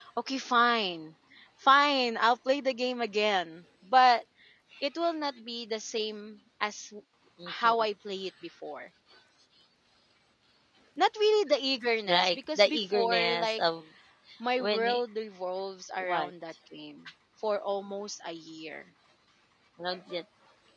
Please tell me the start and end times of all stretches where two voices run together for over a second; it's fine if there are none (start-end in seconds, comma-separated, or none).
12.1-13.6